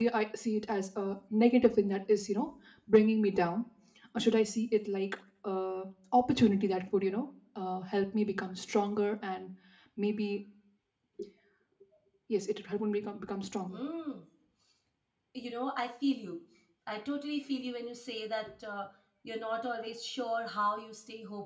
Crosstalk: none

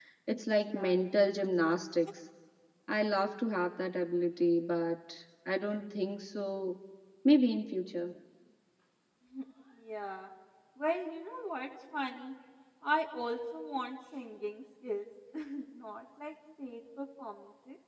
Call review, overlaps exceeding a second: none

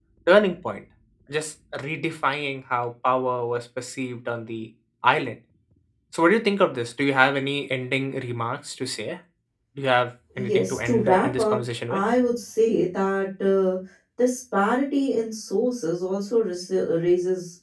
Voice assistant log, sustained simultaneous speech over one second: present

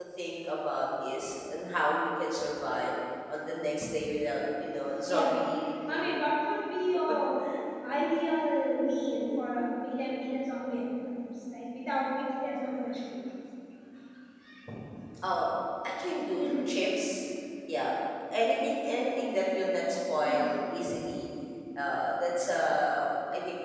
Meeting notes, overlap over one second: none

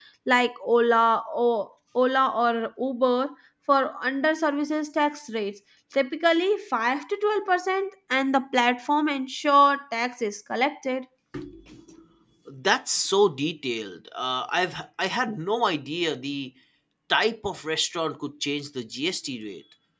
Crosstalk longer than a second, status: none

